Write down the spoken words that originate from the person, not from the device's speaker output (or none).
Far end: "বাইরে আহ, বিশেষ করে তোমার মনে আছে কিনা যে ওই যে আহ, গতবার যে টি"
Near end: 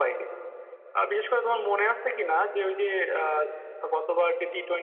none